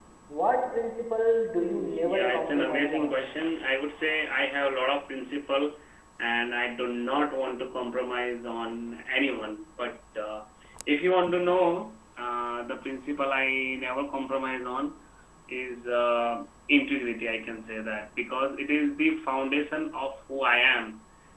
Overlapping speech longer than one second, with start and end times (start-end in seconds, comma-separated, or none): 1.7-3.1